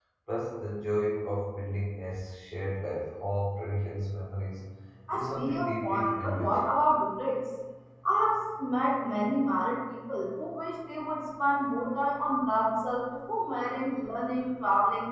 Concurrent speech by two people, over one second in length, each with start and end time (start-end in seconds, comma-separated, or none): 5.1-6.7